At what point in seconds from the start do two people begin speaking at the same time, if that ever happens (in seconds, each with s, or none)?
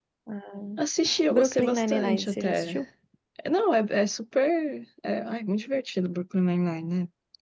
1.3 s